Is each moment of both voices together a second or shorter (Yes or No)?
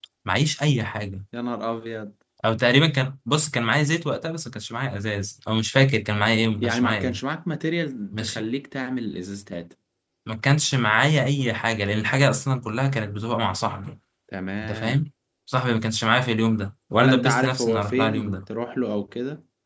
No